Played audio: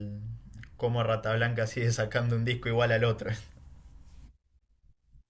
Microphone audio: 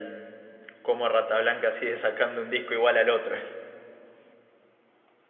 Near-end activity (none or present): none